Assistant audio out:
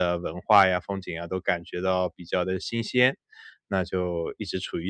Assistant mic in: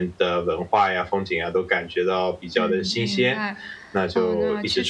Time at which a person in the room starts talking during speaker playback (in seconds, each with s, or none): 2.6 s